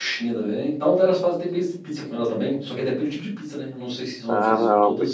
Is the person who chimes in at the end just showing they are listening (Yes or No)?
No